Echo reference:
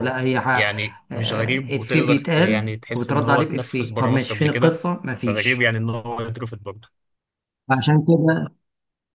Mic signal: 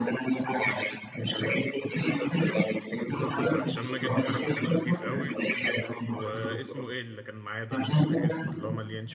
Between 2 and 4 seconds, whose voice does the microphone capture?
both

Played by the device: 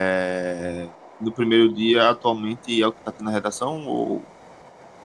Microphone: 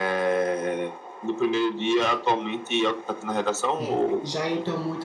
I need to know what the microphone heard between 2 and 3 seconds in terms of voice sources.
echo only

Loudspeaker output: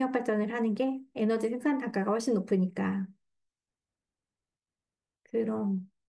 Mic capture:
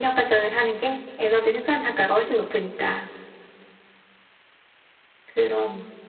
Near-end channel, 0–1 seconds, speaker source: echo only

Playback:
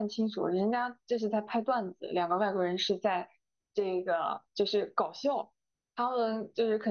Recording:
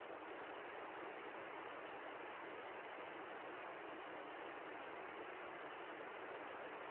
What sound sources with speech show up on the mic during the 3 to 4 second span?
neither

